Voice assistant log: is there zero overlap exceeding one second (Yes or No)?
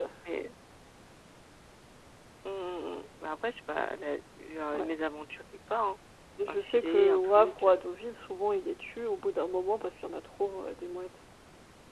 No